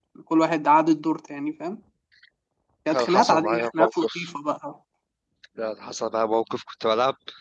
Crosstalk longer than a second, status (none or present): present